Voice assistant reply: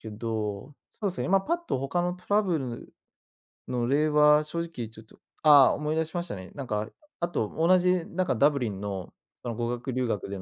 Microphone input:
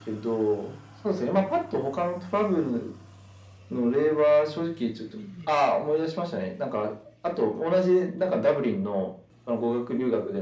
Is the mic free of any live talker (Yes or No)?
No